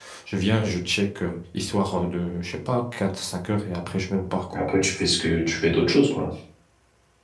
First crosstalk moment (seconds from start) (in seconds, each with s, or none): none